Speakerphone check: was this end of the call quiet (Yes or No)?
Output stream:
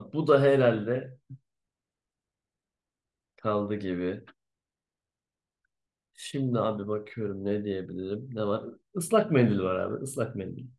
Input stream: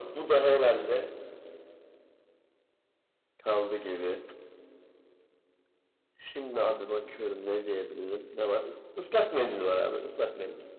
Yes